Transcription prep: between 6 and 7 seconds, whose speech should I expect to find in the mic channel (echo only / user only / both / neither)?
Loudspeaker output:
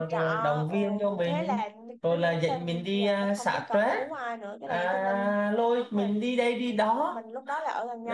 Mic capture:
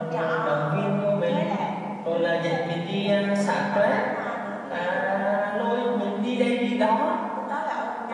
echo only